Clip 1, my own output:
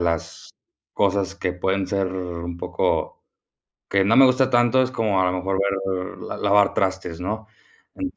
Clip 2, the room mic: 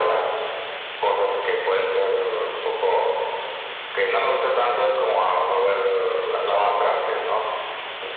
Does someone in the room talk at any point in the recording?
No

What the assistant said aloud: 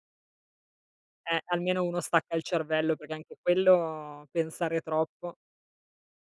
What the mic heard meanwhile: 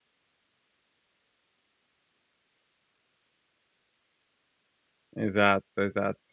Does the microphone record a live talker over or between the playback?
Yes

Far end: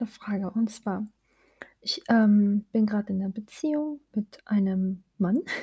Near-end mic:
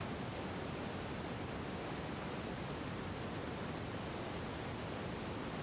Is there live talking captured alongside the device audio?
No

